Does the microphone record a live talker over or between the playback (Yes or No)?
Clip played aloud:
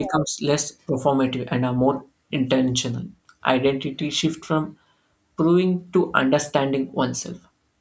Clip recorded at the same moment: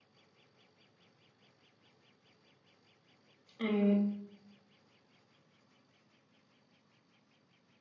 Yes